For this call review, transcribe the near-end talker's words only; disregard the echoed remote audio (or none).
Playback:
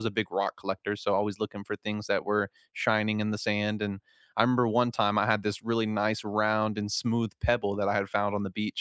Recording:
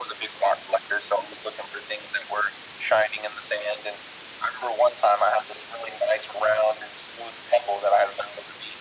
none